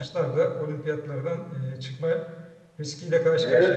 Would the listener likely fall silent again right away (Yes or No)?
No